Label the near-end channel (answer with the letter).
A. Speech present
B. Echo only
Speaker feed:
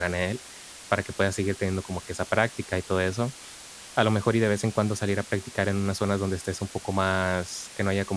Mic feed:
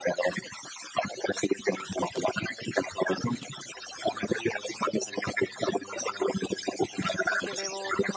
A